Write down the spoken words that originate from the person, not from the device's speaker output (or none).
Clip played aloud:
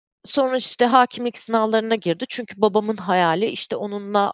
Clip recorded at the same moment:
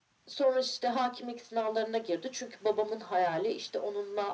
none